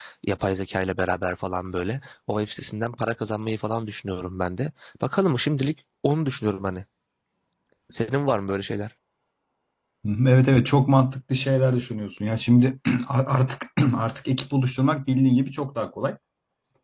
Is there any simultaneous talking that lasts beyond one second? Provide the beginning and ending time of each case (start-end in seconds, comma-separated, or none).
none